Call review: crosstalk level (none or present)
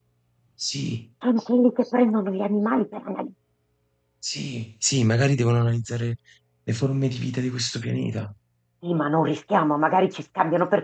none